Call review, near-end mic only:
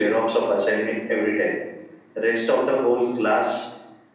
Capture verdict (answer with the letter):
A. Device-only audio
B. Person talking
A